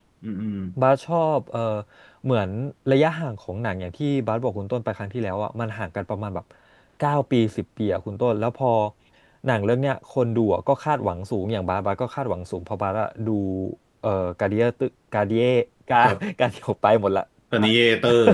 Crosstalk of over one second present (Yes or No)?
No